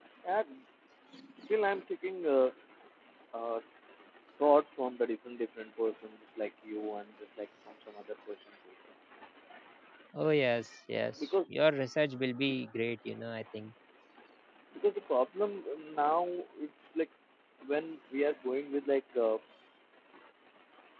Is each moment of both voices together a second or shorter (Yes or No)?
Yes